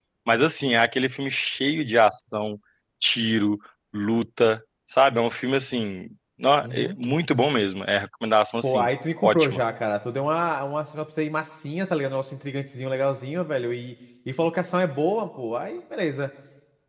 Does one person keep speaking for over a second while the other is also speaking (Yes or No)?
No